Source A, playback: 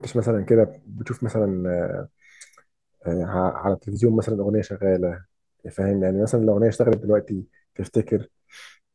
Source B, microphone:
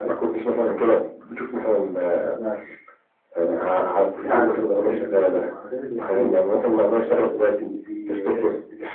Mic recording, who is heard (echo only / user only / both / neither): both